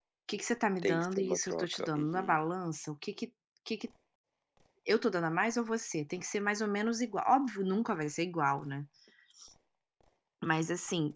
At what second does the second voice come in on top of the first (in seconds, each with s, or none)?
0.8 s